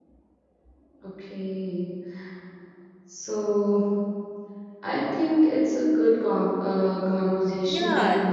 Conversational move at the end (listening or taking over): taking over